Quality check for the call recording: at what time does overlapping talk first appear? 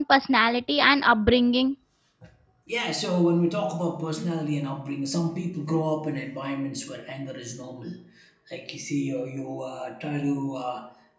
none

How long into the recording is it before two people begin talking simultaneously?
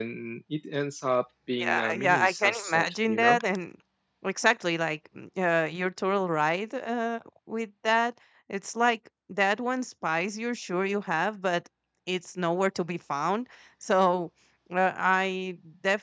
1.6 s

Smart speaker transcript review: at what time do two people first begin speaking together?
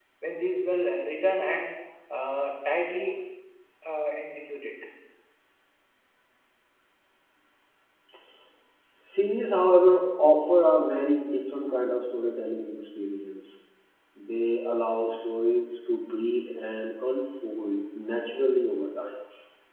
none

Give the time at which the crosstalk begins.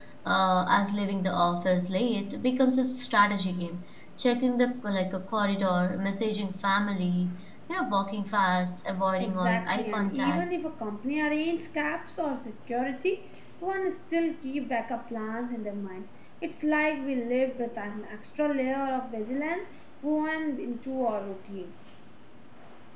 9.2 s

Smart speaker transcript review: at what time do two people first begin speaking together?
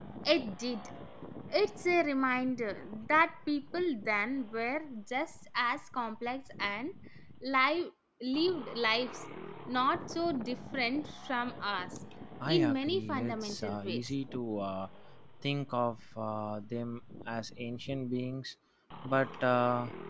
12.5 s

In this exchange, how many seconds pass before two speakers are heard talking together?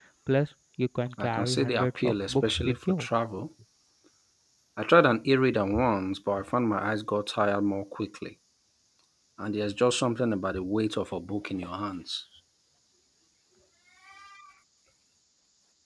1.2 s

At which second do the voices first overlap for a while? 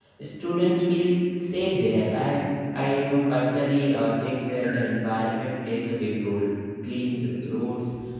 none

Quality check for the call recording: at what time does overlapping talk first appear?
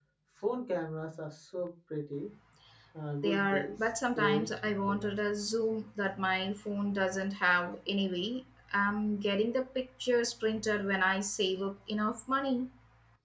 3.2 s

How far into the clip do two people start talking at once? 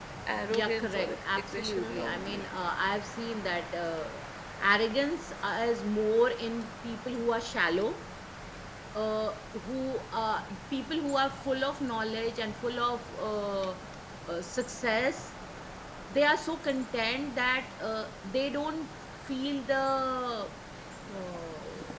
0.5 s

